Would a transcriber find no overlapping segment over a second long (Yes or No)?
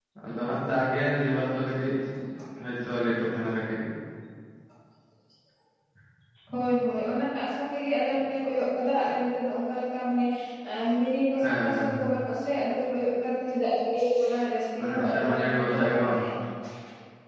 No